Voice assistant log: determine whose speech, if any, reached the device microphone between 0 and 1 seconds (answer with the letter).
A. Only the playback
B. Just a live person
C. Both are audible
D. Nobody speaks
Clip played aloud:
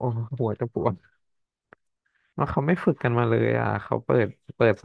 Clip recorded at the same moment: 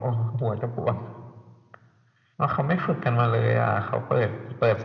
A